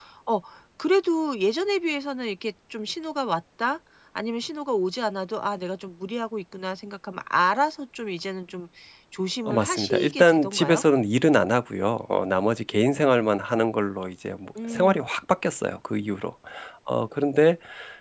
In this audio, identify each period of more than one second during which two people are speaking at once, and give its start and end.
9.5-10.8

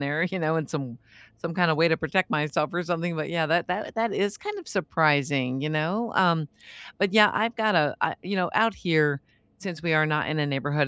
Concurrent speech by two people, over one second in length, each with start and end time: none

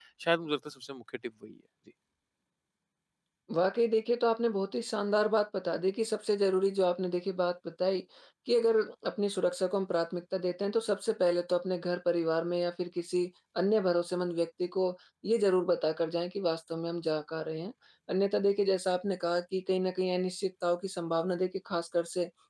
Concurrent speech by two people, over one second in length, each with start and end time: none

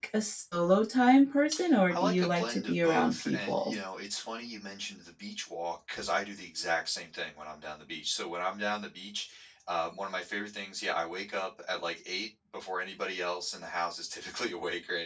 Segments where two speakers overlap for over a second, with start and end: 1.9-3.8

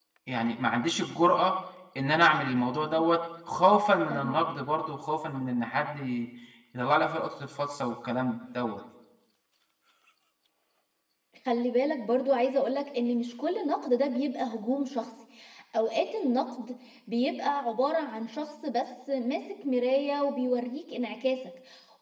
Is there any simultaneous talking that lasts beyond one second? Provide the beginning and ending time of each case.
none

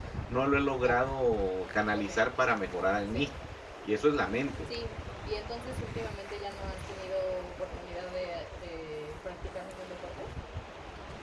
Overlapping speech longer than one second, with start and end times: none

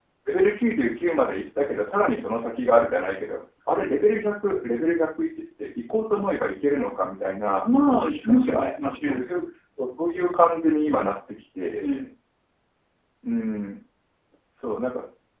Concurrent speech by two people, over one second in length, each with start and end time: none

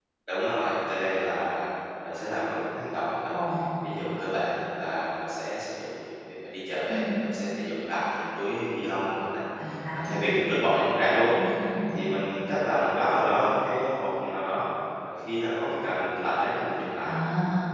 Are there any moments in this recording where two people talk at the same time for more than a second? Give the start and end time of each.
none

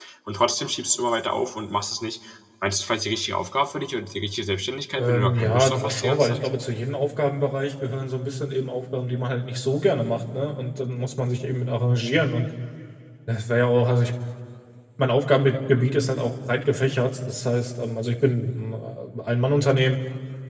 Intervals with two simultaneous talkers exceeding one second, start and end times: 5.0-6.5

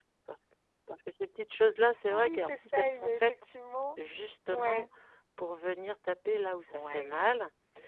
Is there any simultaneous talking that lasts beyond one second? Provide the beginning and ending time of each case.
2.1-3.3

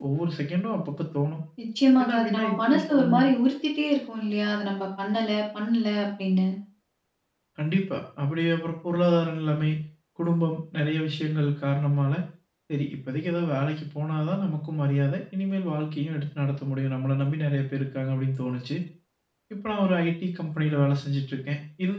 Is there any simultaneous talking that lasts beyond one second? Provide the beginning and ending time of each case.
2.0-3.3

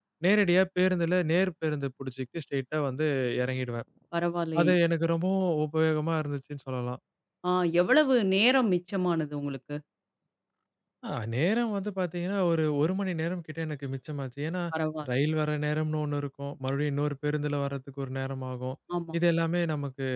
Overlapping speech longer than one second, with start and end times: none

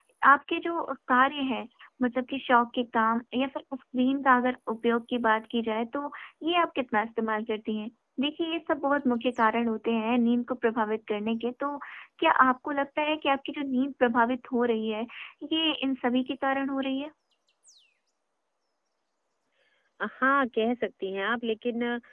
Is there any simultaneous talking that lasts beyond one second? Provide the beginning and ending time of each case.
none

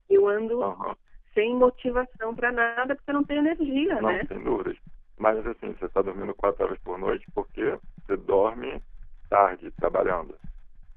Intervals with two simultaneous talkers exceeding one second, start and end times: none

